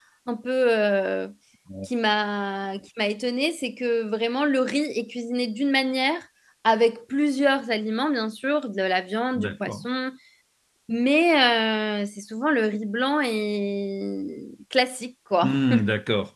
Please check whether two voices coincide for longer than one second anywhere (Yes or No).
No